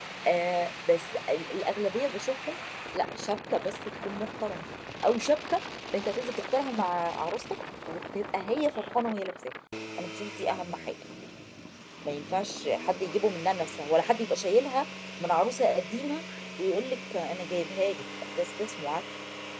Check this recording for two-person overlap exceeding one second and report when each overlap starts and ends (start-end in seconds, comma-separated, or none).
none